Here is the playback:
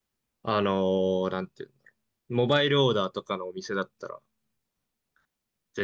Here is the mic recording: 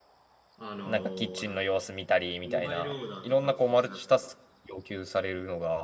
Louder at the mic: user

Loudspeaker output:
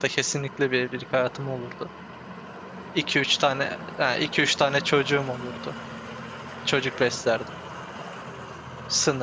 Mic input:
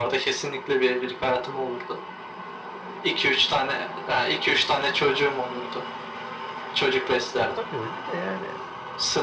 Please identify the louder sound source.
echo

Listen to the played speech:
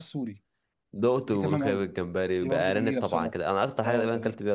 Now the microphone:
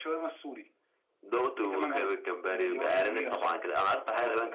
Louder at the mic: echo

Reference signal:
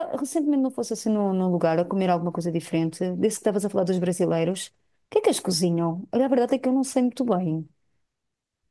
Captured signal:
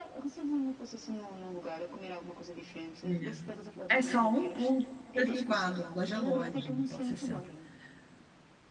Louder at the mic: user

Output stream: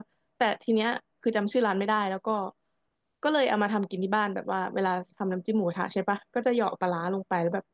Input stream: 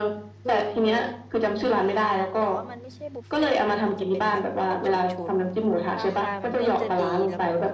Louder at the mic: echo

